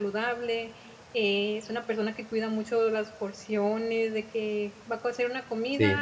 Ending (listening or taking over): listening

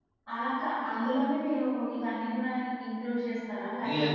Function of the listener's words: taking over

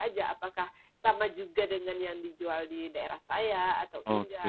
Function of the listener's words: taking over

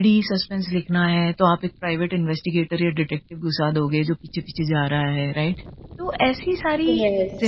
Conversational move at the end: listening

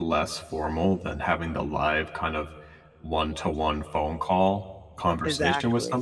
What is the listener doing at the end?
listening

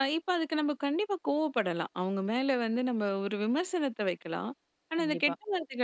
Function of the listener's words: listening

